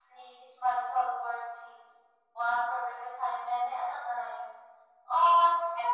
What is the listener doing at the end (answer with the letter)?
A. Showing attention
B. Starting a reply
A